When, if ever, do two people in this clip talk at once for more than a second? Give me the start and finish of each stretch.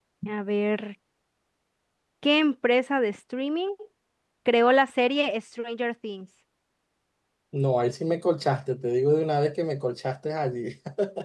none

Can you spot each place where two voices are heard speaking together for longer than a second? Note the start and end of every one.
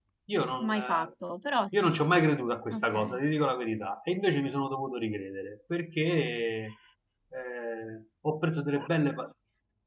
none

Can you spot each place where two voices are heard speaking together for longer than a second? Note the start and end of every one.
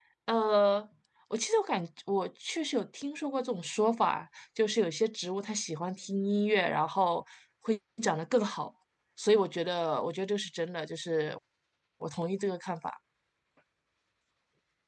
none

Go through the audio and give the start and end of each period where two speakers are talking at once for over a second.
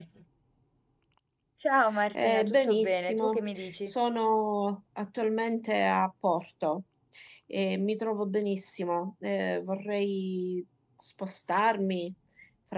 2.1-3.9

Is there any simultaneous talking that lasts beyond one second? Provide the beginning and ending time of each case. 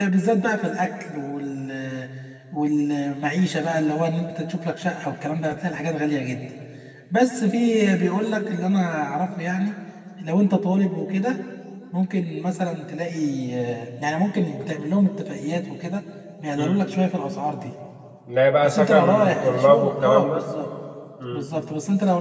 18.6-20.4

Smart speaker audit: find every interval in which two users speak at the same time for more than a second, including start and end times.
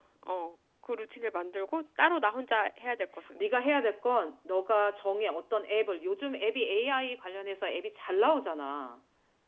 none

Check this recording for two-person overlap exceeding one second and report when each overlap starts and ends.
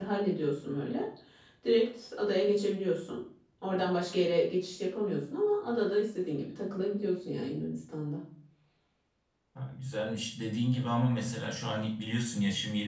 none

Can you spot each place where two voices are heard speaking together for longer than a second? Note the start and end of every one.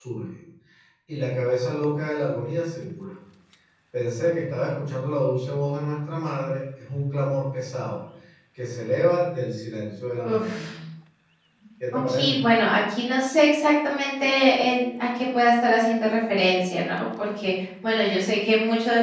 none

